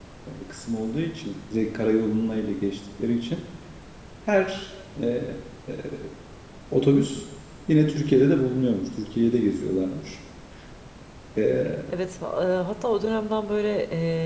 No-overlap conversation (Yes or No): Yes